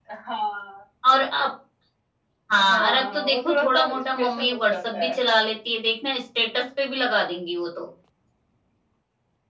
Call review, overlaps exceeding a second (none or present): present